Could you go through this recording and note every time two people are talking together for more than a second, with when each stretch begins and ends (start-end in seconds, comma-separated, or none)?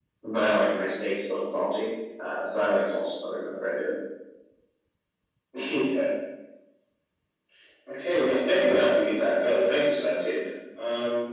none